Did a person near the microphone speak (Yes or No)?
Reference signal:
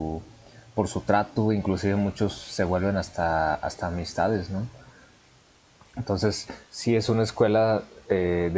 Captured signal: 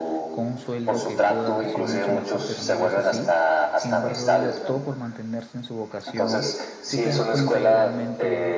Yes